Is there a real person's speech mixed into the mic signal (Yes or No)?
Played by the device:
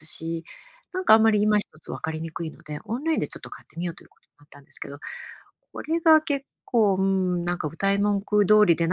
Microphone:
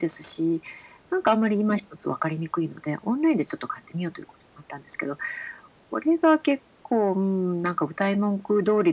No